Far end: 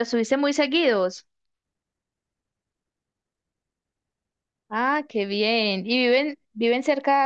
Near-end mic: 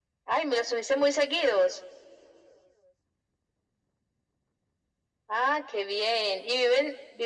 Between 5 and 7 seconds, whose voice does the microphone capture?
echo only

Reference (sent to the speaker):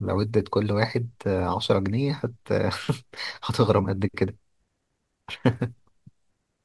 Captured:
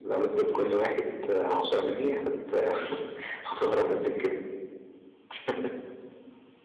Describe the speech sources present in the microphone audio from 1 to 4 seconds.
echo only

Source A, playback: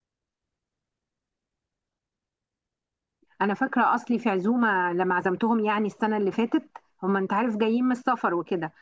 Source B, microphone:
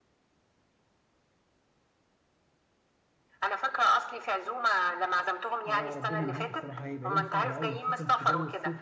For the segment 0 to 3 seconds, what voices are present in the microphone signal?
neither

